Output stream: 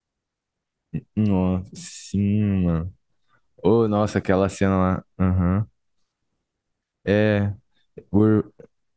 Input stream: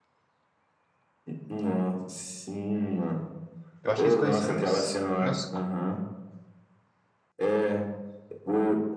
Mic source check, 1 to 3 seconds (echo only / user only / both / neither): echo only